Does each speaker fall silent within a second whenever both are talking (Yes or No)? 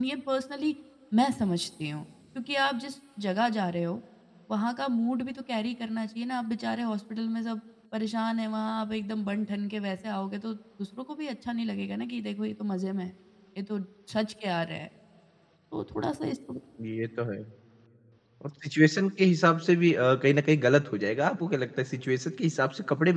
Yes